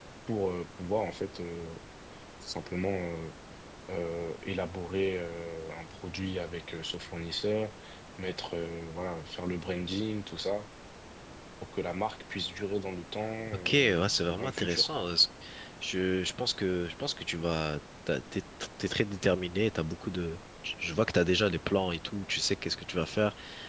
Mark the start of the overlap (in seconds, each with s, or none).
13.5 s